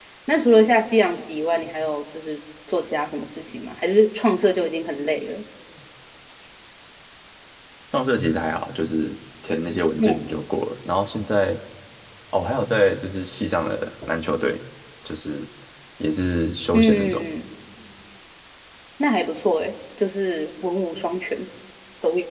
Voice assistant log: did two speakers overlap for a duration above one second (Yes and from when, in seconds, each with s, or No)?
No